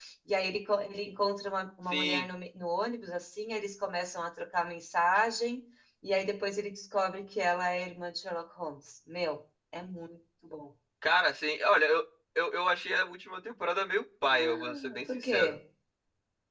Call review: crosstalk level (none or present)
present